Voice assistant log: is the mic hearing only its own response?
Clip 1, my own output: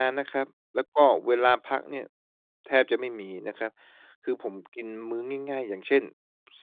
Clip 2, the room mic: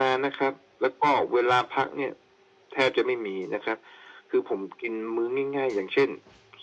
Yes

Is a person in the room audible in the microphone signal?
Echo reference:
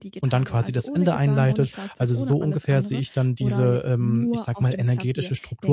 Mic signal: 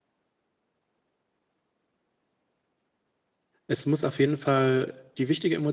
Yes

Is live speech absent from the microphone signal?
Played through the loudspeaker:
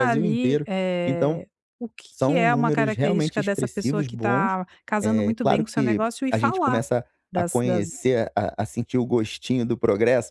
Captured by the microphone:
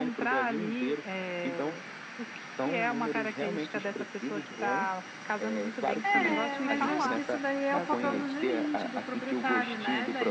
No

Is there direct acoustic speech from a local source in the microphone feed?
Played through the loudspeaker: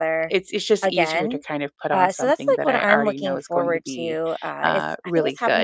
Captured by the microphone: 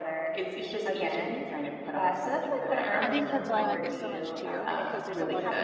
Yes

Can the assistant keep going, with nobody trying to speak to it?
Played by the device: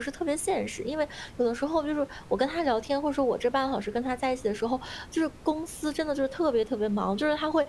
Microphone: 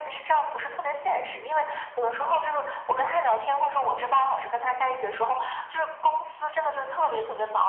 Yes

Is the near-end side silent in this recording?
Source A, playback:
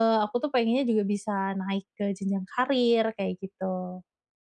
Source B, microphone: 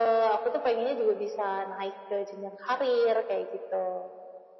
Yes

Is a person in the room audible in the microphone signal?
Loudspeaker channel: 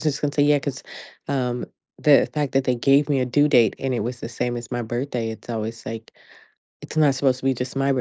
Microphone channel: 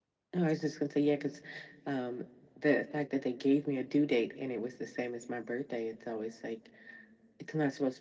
No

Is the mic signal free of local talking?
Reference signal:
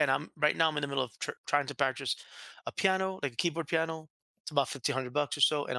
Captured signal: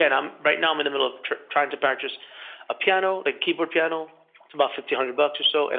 Yes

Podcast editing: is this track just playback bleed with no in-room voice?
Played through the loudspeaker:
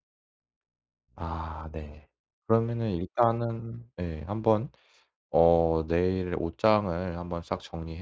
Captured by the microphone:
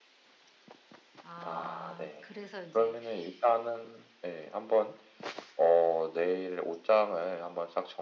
No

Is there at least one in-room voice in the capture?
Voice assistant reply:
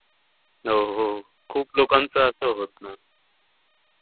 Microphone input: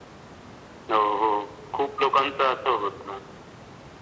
No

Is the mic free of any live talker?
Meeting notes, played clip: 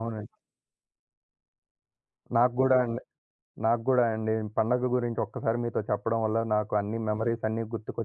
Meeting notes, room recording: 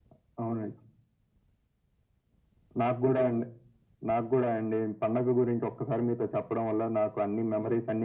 Yes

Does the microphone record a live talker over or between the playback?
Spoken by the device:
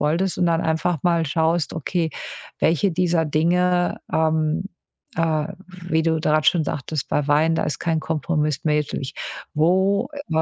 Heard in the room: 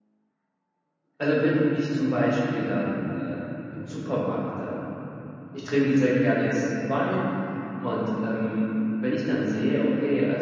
Yes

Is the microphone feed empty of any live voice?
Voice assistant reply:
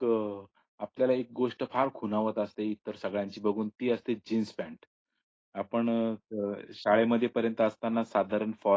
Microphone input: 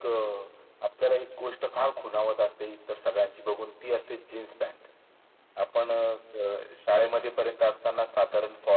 Yes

